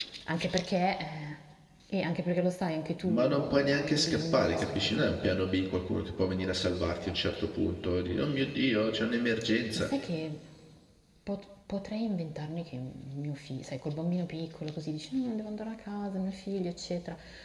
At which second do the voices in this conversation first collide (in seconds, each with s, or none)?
3.0 s